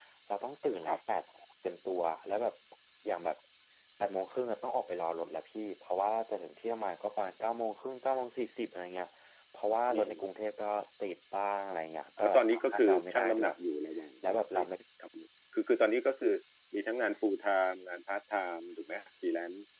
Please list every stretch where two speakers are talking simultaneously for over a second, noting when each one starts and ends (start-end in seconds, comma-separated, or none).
12.2-13.5